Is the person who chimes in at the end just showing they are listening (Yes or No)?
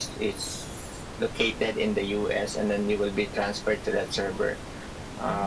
No